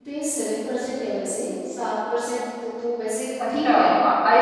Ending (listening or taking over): taking over